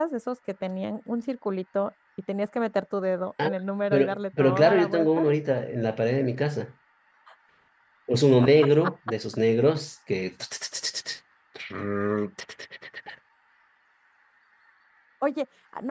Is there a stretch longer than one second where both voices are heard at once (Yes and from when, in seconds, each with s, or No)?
Yes, from 3.9 s